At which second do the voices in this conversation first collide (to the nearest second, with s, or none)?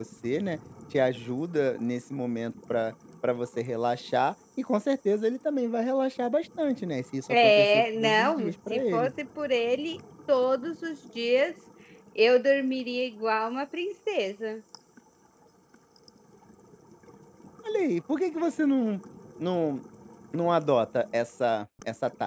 7 s